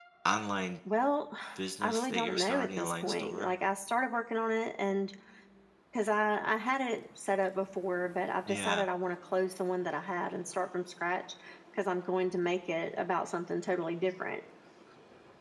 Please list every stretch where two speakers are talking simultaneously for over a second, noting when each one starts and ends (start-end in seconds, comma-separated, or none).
1.8-3.5